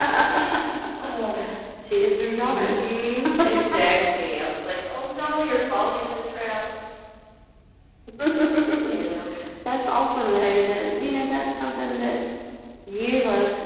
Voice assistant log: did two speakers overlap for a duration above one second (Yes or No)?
No